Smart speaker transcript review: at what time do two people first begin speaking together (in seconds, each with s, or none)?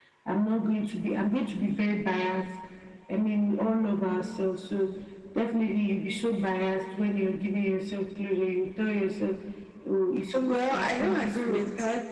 10.3 s